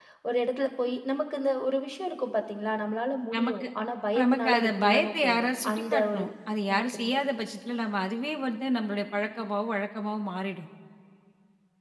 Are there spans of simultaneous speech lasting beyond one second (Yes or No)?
Yes